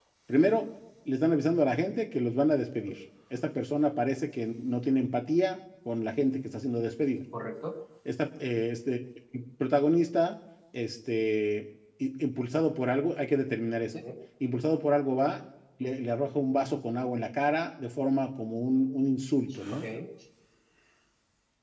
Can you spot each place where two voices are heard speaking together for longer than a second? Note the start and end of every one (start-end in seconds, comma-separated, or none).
none